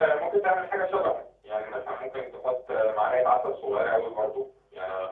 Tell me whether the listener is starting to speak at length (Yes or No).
No